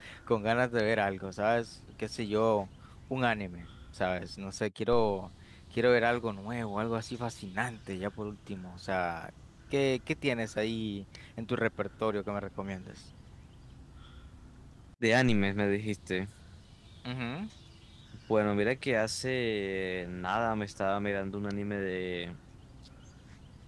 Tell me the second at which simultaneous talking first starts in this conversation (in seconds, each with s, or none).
none